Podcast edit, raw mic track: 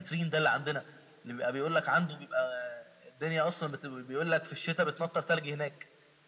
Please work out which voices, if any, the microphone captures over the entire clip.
echo only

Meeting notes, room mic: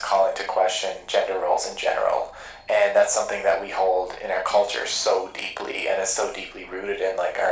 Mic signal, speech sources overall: echo only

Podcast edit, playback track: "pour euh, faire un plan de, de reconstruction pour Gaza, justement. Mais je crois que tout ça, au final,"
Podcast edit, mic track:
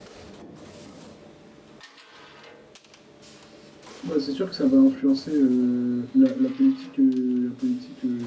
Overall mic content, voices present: user only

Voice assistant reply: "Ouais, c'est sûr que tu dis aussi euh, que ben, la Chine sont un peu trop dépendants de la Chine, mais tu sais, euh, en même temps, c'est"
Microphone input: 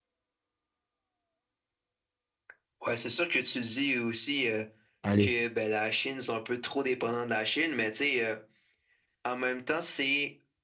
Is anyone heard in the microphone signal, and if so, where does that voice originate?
both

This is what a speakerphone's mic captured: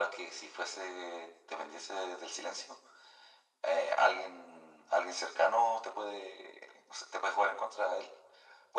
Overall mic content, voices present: echo only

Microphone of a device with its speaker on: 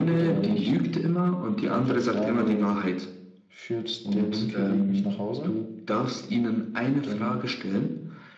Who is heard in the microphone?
echo only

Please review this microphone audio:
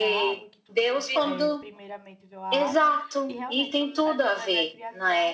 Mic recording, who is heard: both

